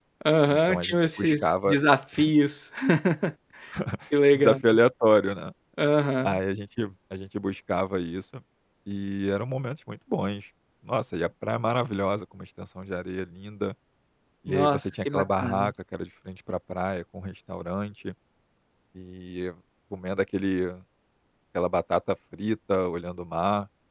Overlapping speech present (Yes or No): Yes